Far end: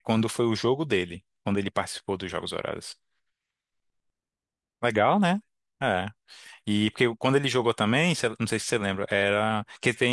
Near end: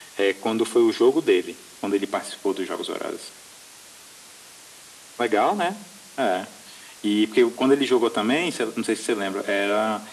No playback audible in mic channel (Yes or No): No